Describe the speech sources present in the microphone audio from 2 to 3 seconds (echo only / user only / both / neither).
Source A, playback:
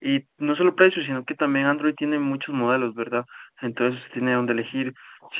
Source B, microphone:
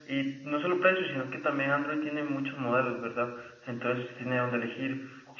echo only